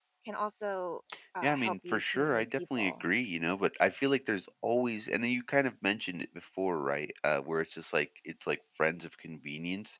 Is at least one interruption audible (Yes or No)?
Yes